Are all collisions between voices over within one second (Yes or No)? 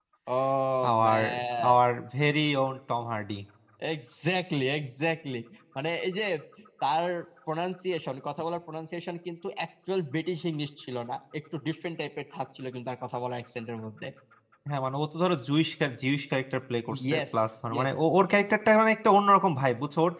Yes